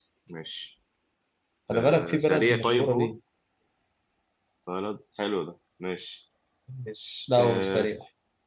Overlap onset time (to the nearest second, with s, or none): 2 s